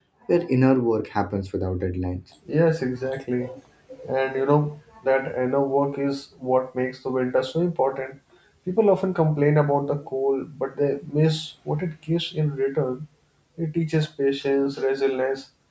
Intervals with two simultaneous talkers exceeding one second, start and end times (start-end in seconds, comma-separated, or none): none